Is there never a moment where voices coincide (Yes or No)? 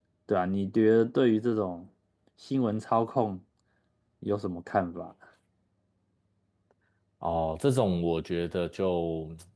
Yes